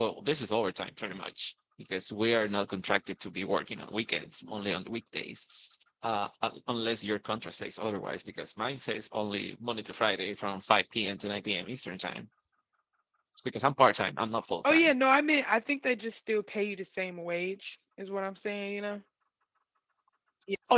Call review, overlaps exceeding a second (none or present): none